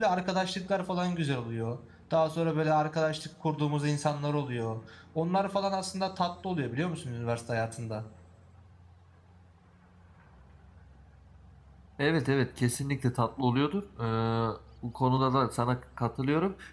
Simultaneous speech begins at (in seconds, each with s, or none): none